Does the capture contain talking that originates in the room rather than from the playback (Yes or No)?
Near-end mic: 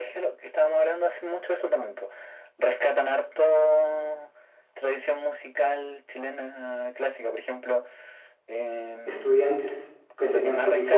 Yes